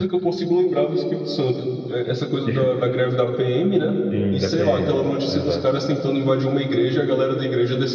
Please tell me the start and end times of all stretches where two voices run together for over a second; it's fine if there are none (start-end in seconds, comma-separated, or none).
4.3-5.6